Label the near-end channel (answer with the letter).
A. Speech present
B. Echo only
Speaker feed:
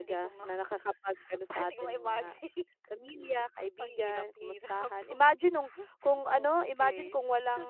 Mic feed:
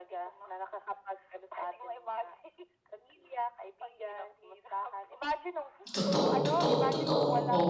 A